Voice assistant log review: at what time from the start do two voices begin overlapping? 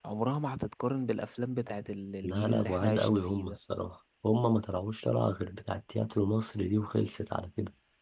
2 s

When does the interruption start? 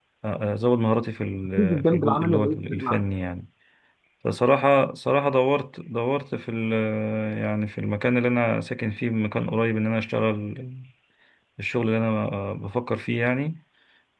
2 s

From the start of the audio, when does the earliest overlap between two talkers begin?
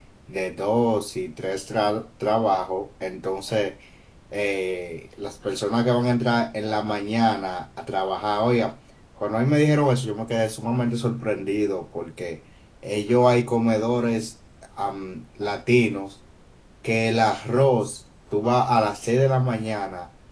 none

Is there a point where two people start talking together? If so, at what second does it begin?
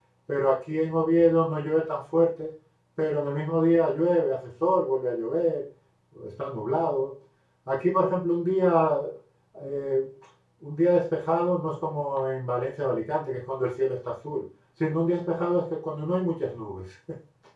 none

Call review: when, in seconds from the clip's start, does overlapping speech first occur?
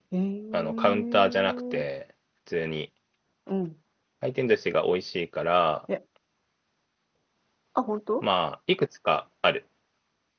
1 s

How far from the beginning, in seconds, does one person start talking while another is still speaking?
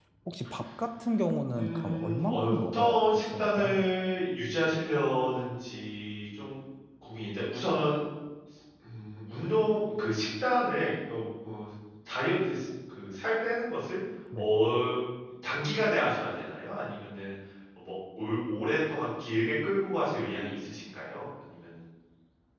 2 s

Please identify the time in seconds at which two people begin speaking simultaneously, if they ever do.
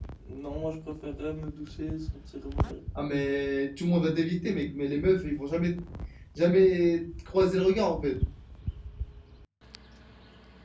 none

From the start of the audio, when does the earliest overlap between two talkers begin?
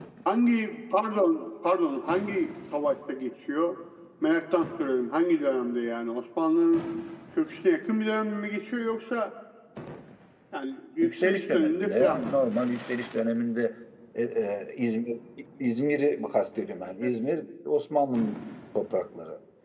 11 s

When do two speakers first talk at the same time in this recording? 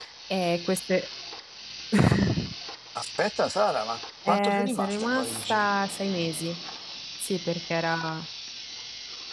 4 s

